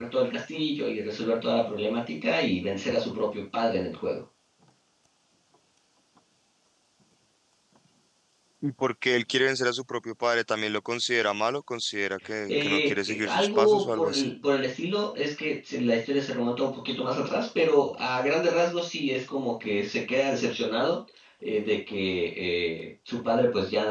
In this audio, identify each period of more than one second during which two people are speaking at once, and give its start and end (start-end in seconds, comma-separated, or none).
12.5-14.3